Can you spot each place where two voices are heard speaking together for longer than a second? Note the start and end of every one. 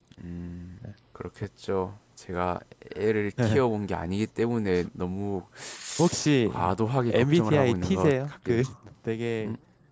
7.1-8.6

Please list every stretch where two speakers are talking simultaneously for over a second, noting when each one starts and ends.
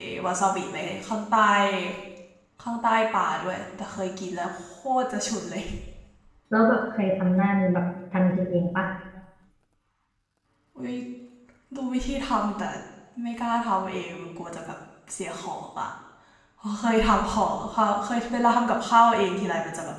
none

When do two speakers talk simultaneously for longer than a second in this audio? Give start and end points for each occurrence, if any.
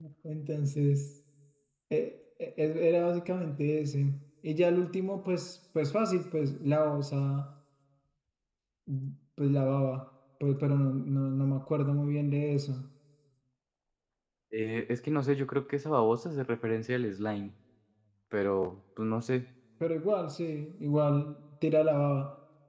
none

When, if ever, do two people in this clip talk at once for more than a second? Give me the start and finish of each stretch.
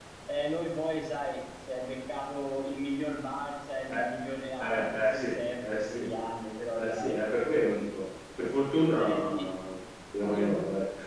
4.6-6.1

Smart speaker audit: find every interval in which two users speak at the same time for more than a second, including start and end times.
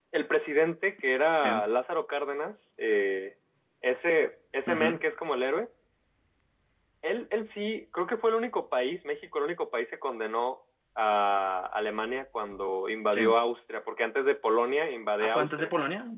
none

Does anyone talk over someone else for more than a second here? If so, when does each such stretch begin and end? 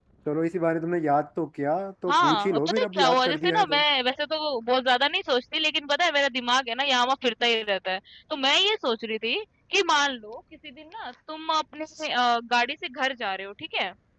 2.1-3.8

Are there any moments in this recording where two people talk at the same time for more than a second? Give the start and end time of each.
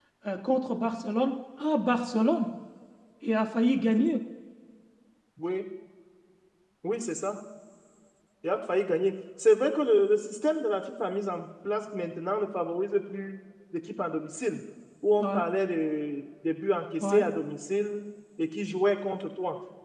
none

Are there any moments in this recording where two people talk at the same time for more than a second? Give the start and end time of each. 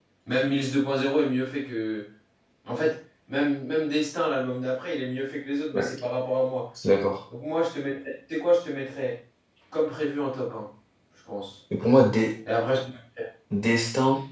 none

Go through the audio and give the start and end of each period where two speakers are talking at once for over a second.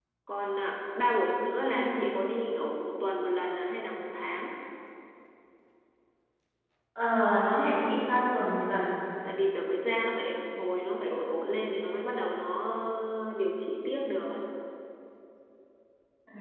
none

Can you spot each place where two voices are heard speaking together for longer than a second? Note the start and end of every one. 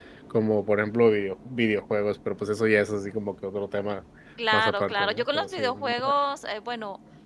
4.5-6.1

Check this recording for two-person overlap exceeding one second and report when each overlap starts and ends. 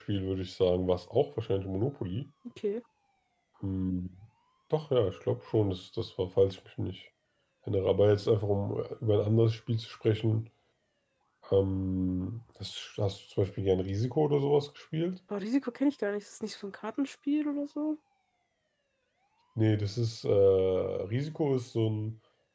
none

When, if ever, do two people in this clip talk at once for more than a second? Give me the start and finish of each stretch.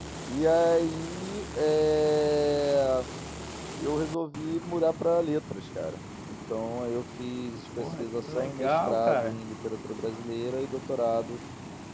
7.8-9.4

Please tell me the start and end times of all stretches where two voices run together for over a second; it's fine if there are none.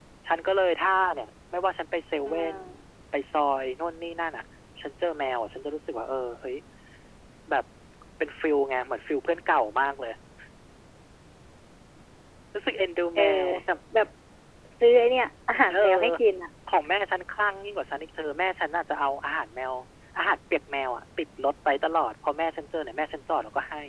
none

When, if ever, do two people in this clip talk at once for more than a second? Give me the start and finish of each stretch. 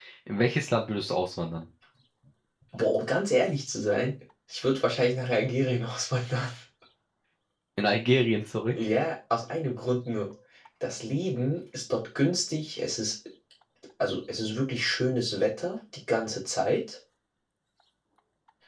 none

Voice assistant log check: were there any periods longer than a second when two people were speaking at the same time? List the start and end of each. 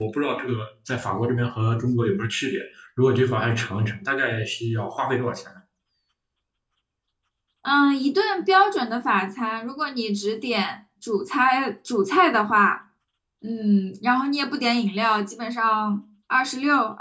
none

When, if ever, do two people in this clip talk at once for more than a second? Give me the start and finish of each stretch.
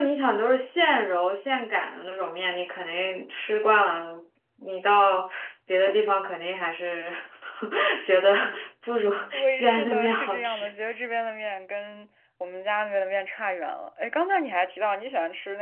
9.3-10.7

